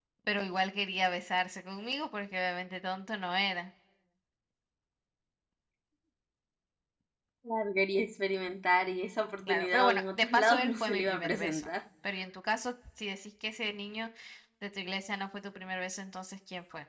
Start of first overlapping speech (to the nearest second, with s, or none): 9 s